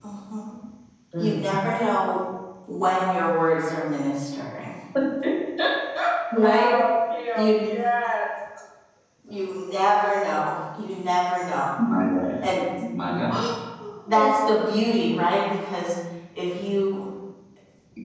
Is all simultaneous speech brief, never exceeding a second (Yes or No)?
Yes